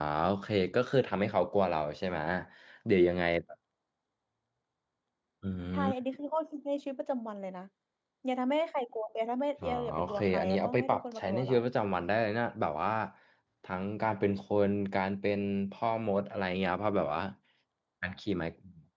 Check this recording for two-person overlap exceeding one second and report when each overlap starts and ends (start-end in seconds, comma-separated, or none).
9.6-11.6